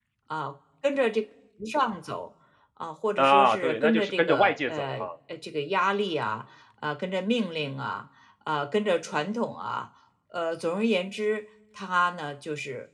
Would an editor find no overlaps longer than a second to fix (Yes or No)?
No